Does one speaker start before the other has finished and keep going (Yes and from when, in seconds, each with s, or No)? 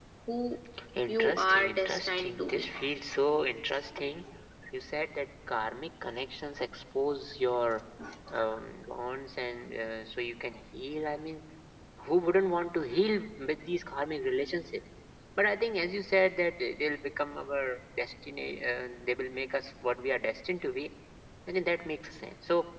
Yes, from 1.1 s